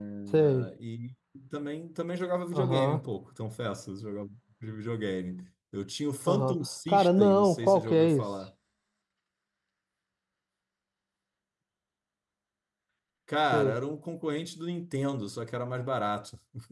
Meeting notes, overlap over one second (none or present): present